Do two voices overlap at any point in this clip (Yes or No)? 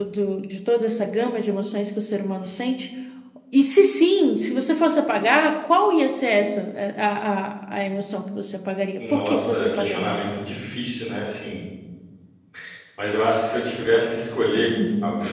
Yes